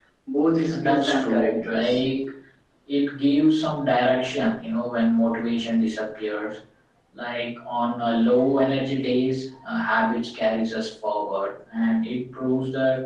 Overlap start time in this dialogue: 0.7 s

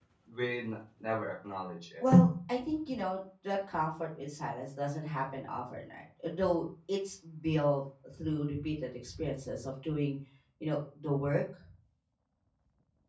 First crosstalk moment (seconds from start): none

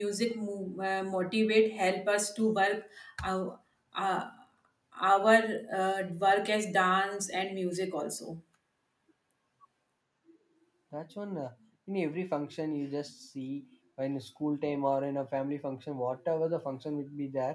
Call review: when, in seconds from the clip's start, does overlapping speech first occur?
none

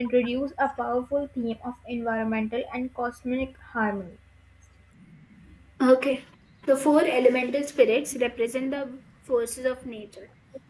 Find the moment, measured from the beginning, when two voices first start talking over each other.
none

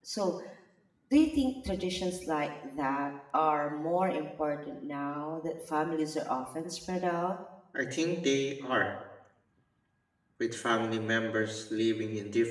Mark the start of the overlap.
none

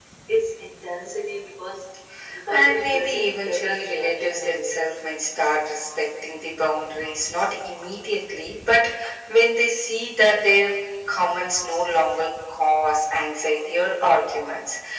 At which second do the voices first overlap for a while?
2.5 s

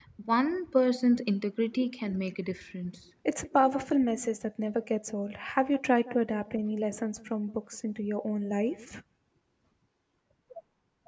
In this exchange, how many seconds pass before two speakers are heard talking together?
none

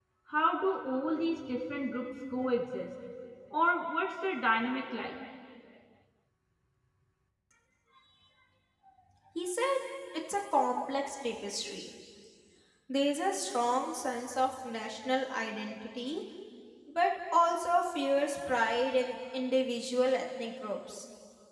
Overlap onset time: none

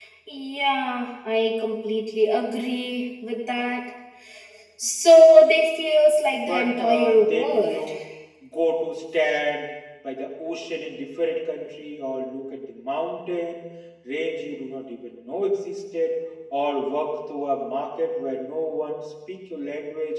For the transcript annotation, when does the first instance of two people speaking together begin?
6.3 s

